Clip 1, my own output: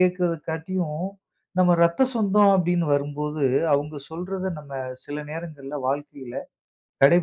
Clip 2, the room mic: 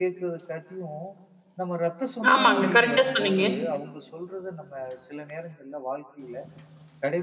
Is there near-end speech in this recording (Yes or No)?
Yes